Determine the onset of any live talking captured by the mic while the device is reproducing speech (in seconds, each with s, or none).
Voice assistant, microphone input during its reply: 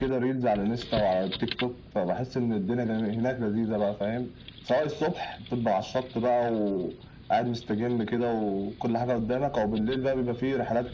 none